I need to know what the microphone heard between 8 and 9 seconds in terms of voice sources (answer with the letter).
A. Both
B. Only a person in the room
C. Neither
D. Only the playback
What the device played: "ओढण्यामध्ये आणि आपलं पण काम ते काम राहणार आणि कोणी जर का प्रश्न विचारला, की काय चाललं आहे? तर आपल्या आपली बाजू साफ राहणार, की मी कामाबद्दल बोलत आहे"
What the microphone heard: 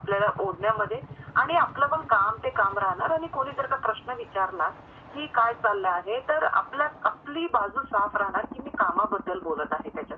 D